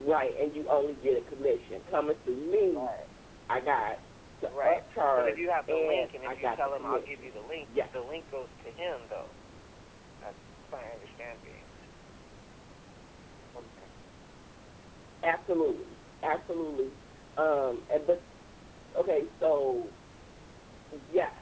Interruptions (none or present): present